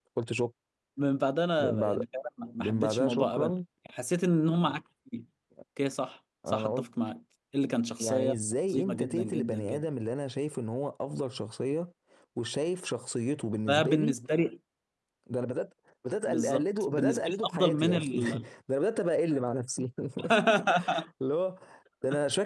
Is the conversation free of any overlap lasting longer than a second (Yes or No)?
No